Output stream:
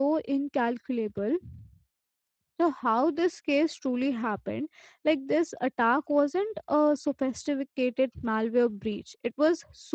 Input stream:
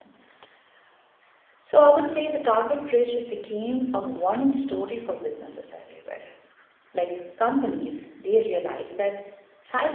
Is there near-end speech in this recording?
Yes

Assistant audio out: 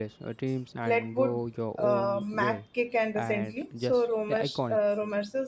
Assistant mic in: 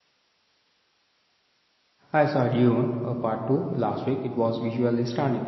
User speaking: Yes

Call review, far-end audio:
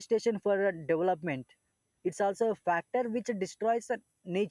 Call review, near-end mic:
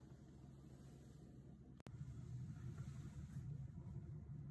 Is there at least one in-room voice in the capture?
No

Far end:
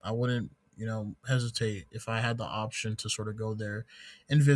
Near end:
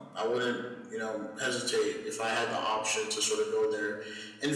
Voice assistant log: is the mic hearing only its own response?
Yes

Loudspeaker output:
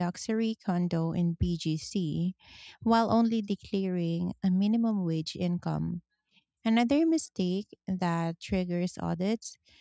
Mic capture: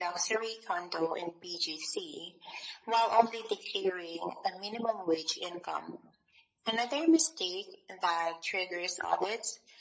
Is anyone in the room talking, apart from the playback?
No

